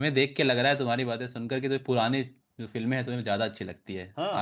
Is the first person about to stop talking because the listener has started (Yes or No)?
Yes